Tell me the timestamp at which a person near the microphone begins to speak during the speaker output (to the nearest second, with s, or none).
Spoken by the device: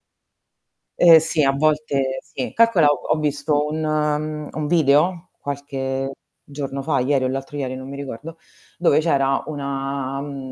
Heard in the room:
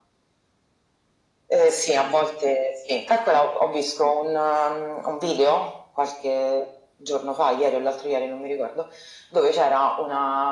none